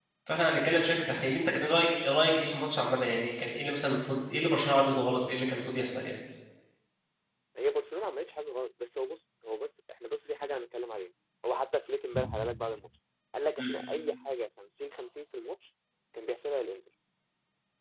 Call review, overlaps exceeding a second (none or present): none